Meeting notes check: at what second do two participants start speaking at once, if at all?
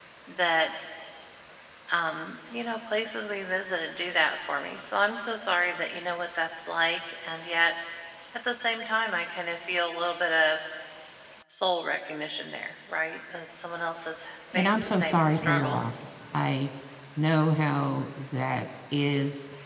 15 s

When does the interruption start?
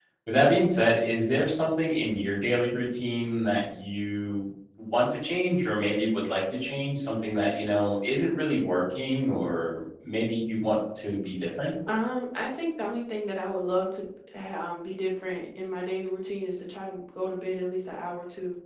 none

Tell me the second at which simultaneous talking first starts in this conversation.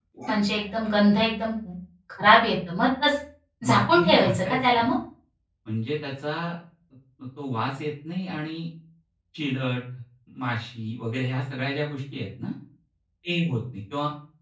4 s

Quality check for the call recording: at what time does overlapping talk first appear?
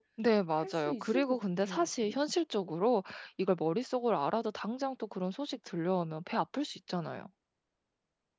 1 s

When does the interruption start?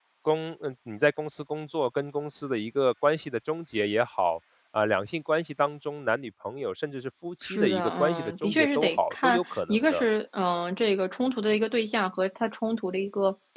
7 s

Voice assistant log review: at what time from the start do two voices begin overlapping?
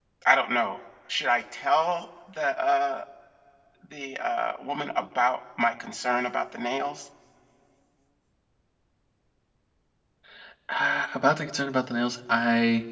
none

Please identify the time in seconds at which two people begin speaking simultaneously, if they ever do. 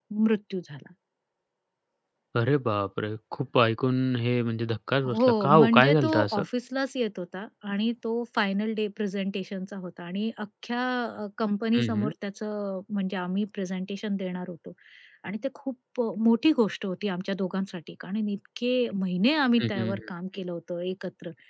5 s

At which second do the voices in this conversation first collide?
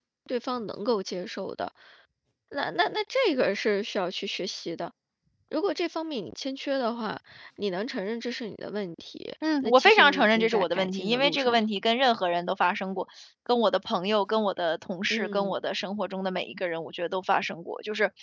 10 s

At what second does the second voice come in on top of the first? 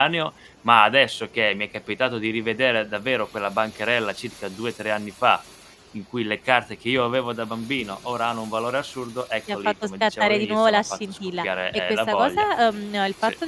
9 s

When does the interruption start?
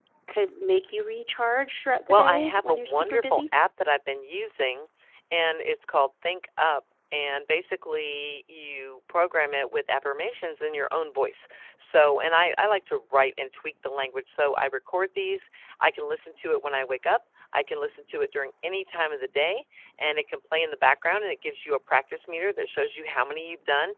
2 s

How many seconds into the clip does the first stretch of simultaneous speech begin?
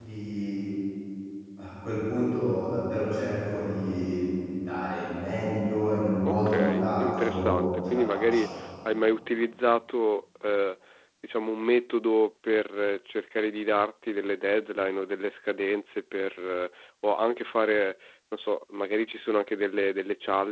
6 s

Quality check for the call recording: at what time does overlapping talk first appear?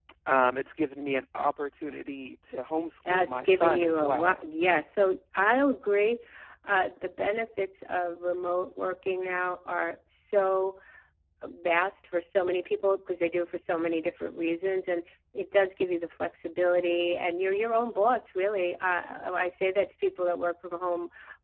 3 s

